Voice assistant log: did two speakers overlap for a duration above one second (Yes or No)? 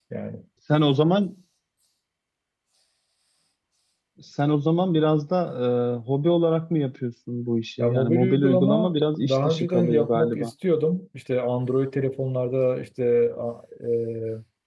Yes